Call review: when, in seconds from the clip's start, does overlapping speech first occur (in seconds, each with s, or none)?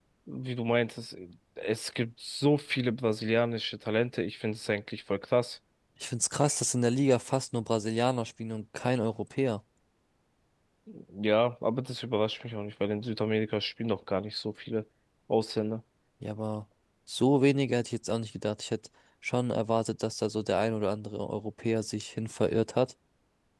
none